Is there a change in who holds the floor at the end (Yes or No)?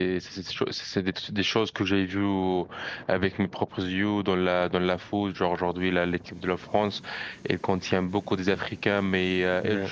No